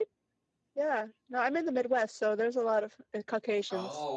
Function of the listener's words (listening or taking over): taking over